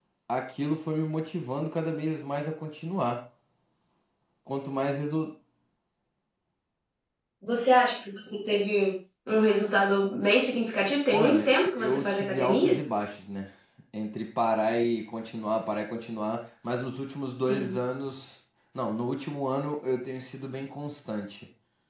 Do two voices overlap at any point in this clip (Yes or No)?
Yes